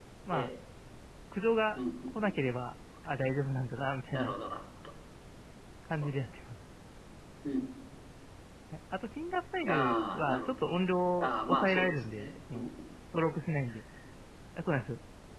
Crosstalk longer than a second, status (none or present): present